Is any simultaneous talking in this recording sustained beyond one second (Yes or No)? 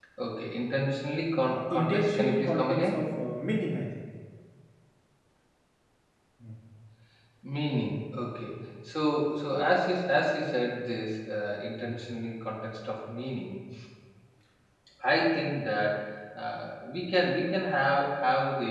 Yes